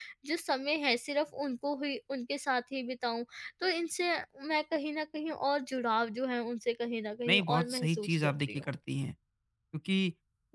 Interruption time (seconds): 7.3 s

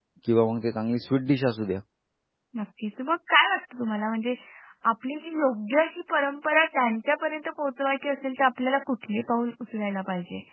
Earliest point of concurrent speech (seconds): none

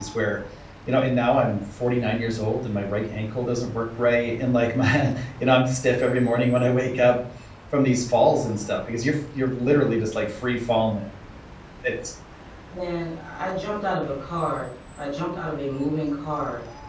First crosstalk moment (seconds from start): none

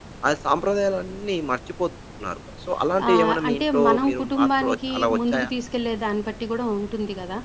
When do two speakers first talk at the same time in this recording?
3.0 s

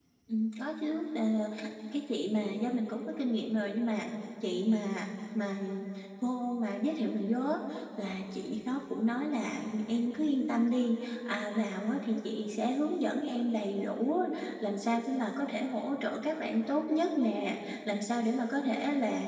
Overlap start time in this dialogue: none

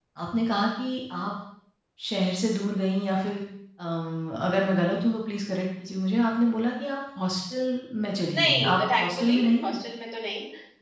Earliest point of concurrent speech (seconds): 8.3 s

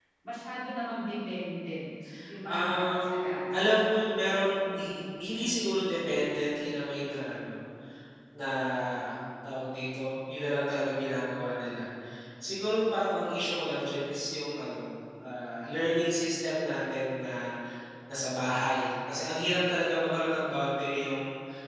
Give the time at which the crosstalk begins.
2.5 s

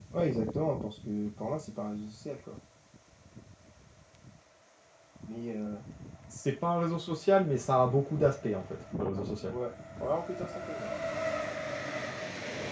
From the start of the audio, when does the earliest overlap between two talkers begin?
none

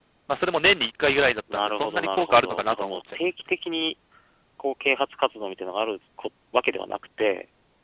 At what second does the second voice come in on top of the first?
1.5 s

